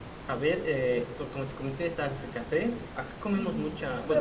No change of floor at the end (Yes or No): No